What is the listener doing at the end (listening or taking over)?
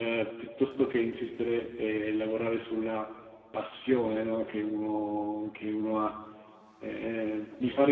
listening